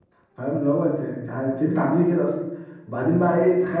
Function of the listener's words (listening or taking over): listening